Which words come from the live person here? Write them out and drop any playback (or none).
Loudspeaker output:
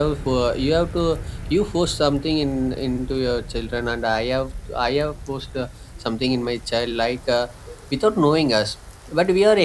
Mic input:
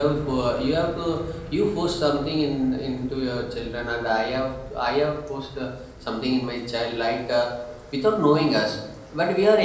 none